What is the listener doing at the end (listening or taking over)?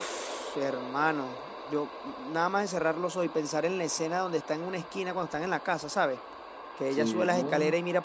listening